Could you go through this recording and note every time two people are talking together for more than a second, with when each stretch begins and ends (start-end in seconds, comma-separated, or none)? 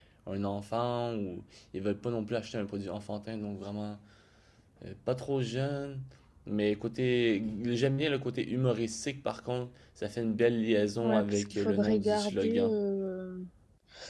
11.0-12.7